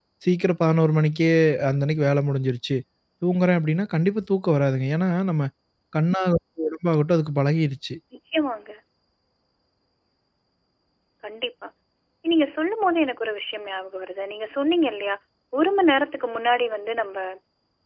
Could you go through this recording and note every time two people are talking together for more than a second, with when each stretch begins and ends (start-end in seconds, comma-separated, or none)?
none